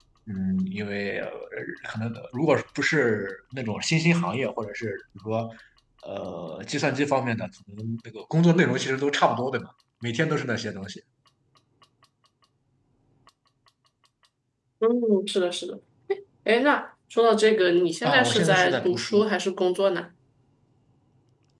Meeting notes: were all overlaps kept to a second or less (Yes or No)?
No